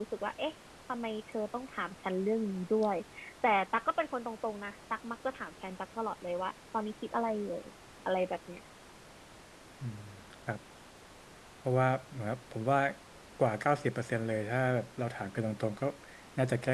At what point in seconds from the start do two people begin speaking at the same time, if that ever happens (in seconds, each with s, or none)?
none